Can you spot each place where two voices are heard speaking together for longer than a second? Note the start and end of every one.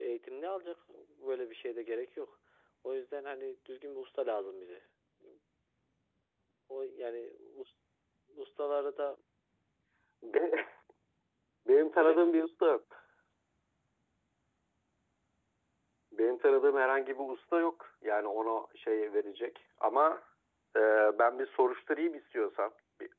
none

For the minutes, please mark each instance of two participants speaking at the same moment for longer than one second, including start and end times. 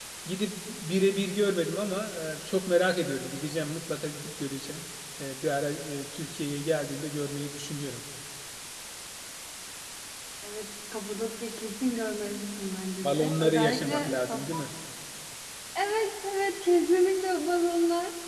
13.0-14.4

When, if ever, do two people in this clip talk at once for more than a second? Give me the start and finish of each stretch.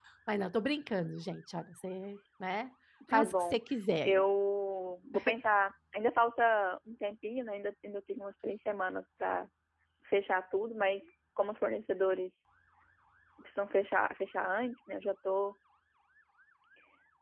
none

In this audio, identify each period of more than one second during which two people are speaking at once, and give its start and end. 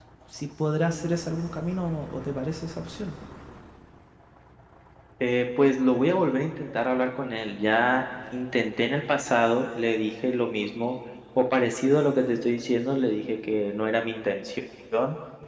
none

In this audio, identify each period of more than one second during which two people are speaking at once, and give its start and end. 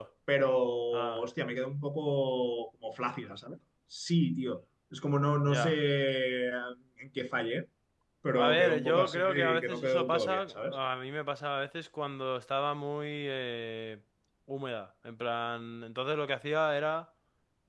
8.3-10.8

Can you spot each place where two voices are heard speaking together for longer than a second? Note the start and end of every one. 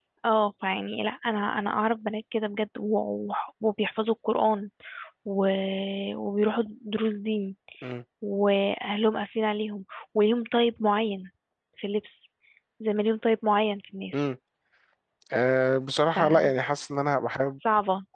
none

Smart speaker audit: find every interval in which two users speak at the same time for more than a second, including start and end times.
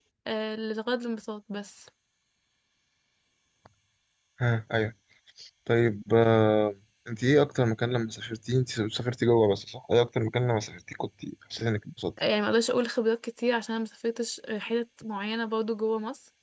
none

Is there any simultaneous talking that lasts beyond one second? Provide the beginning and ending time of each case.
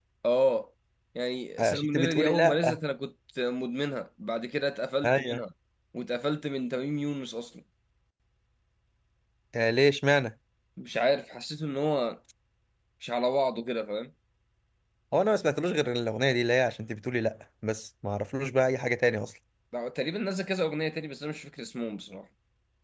1.6-2.8

